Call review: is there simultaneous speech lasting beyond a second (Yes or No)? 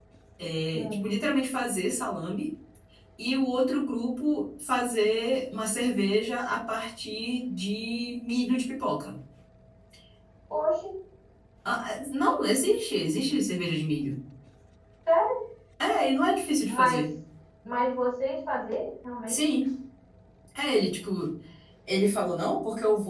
No